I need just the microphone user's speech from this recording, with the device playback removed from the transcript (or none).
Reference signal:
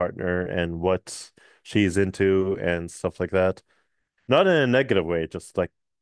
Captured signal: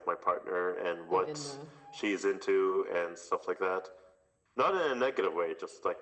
So in the